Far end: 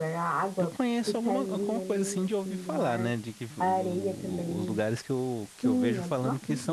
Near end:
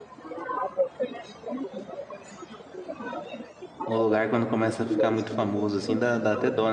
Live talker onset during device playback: 3.9 s

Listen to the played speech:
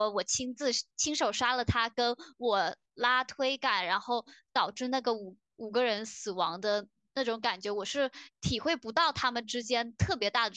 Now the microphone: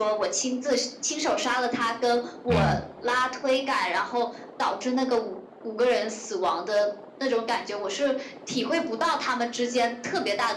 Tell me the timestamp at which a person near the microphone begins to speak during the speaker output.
2.5 s

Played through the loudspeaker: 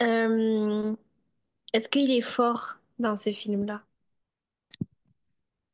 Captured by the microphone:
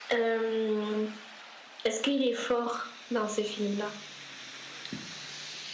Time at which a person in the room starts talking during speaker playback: none

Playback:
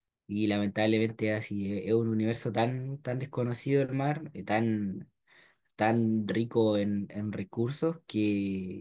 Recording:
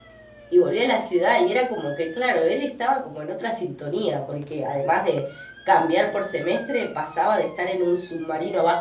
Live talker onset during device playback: 0.5 s

